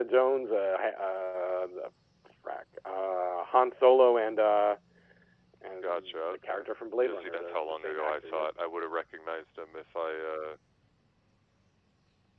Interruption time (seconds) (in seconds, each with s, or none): 5.8 s